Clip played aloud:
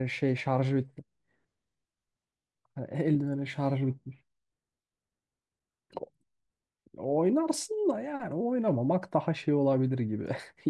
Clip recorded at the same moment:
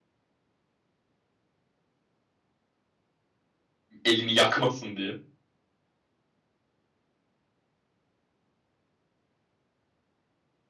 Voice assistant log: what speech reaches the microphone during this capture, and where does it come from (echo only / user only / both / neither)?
user only